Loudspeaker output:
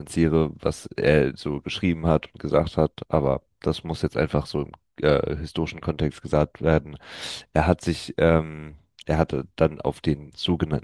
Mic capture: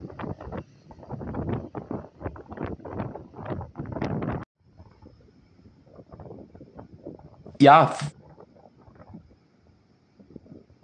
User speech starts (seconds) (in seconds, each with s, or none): 7.6 s